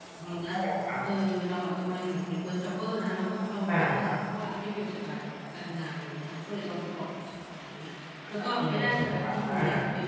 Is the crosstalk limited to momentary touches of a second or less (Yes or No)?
No